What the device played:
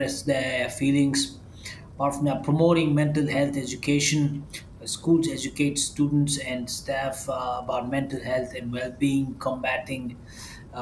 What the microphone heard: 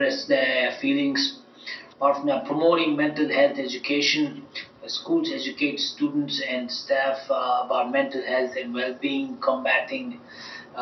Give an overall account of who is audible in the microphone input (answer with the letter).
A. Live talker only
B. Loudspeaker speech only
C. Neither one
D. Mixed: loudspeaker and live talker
B